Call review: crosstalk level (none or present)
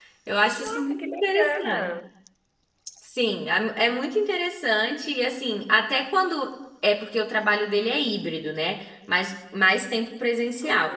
present